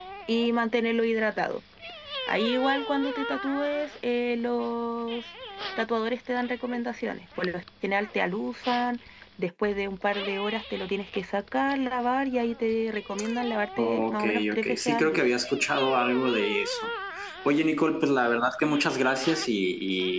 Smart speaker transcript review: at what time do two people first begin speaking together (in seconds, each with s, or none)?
13.8 s